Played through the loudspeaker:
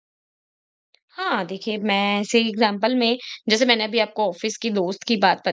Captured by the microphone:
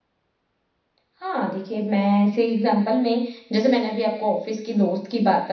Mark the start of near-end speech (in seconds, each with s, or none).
none